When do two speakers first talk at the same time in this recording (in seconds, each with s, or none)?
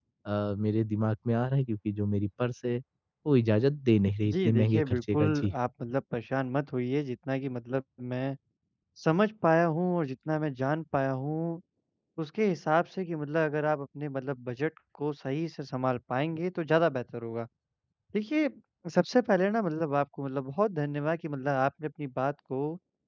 4.2 s